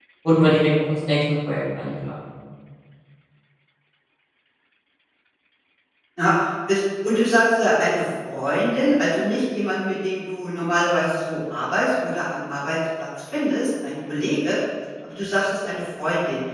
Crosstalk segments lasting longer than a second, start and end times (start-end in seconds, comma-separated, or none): none